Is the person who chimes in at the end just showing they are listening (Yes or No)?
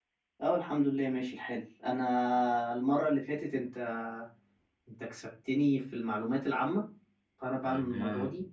Yes